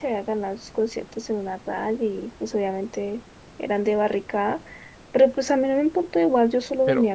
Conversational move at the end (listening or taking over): taking over